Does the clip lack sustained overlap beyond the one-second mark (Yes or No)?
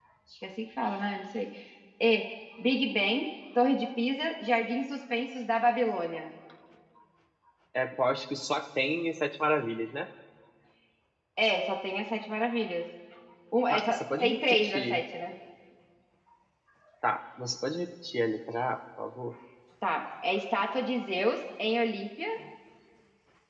No